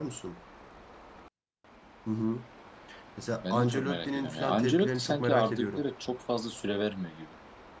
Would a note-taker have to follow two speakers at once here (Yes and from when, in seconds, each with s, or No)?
Yes, from 3.5 s